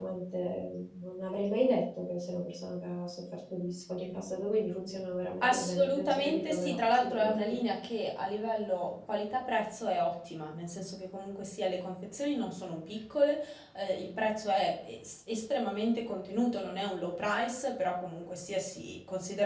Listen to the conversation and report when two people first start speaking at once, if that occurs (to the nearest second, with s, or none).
5 s